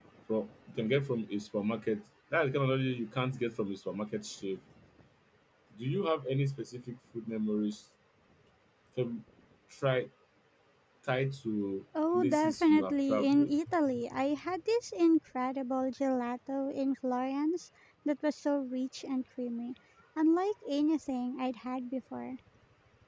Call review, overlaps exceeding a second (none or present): present